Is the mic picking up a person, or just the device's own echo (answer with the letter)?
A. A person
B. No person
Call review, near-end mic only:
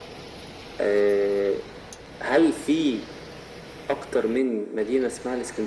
B